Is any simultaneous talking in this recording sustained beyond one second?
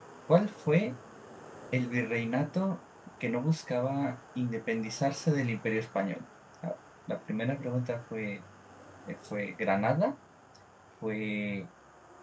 No

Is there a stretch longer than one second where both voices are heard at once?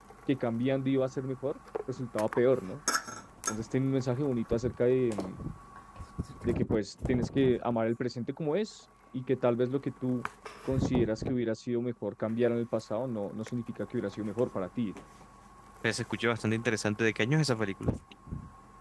No

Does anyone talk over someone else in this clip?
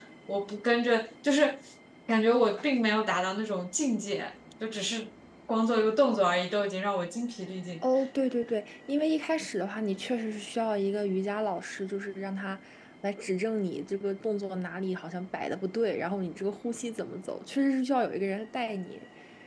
No

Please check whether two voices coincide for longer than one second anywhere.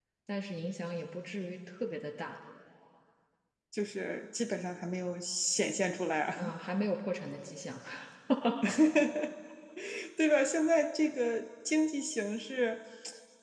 No

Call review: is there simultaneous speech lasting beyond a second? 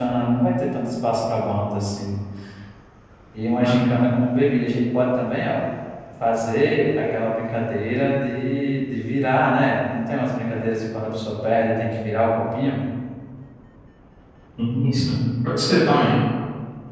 No

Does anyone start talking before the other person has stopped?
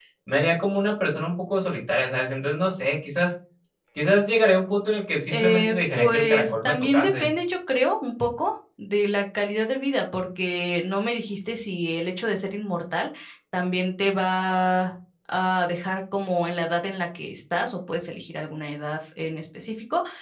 Yes, from 5.3 s

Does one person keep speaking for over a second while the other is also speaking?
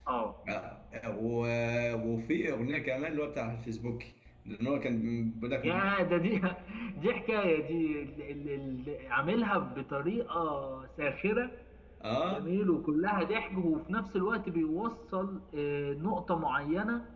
No

